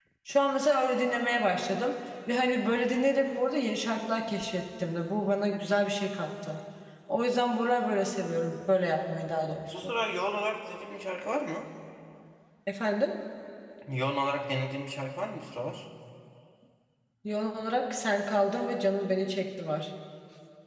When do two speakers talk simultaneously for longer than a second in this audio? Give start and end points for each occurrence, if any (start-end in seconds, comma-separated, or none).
none